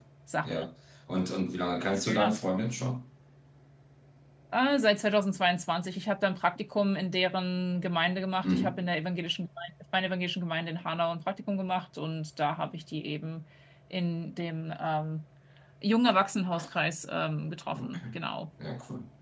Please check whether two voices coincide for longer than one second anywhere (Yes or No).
No